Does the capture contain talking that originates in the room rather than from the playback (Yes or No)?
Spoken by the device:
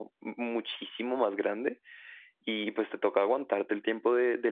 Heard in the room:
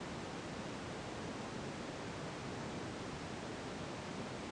No